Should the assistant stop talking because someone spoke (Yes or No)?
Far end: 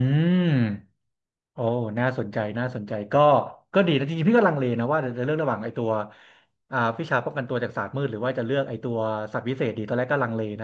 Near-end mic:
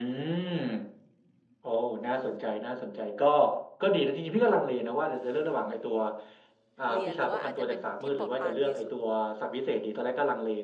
Yes